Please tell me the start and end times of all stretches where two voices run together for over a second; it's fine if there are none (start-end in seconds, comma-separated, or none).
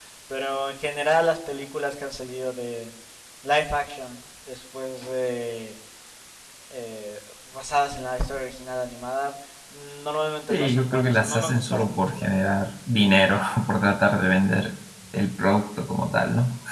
10.5-12.6